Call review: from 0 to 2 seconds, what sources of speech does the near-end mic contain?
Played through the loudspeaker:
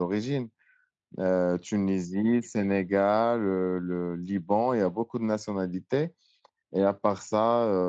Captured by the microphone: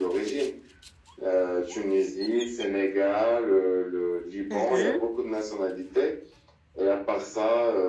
echo only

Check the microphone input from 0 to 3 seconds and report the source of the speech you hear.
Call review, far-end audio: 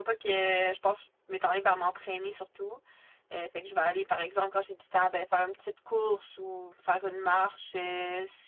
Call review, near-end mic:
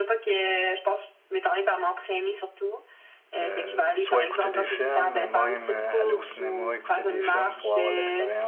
echo only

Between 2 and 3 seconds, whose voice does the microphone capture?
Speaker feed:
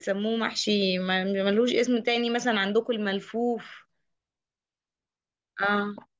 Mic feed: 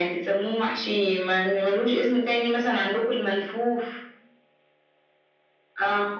echo only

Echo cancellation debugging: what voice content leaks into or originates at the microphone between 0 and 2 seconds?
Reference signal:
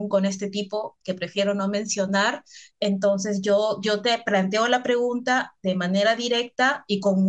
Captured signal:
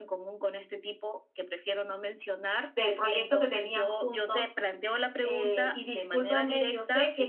echo only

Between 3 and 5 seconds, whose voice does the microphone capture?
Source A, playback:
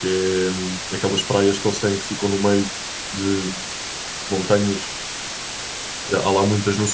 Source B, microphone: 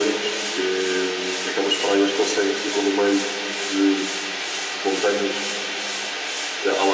echo only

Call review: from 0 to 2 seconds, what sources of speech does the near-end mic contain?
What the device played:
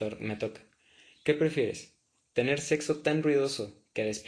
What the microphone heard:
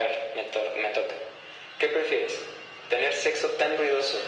echo only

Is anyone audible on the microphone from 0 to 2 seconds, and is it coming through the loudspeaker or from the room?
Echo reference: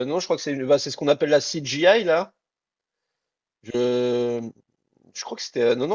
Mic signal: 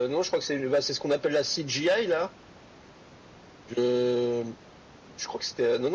echo only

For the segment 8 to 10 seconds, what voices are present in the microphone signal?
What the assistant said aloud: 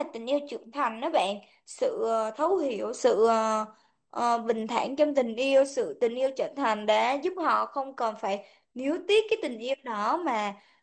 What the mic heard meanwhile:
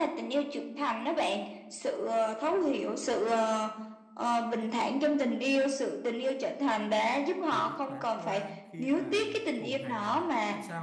both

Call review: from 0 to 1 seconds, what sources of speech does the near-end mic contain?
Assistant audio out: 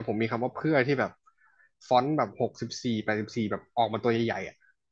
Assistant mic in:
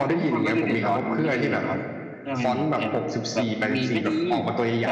both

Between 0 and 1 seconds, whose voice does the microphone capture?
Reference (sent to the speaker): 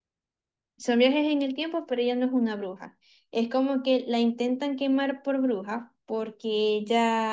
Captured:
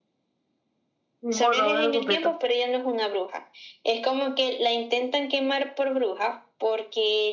neither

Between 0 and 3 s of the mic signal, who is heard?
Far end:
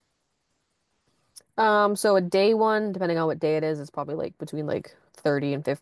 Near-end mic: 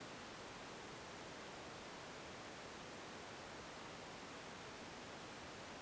neither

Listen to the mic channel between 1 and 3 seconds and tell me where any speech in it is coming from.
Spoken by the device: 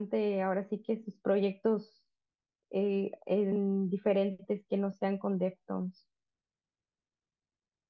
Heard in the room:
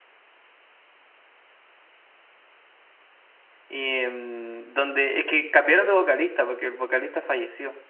neither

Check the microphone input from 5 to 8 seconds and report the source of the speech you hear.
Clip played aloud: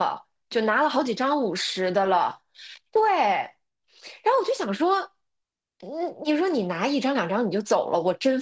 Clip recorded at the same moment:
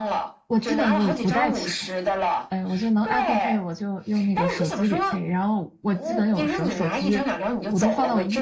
both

